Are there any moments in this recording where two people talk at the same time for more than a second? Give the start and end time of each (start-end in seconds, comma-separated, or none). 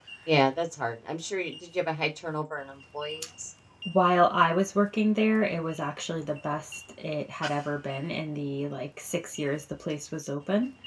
none